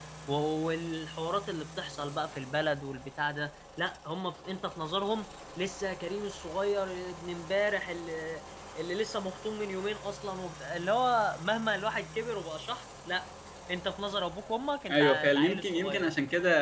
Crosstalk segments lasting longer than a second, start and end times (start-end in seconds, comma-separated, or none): 14.9-16.1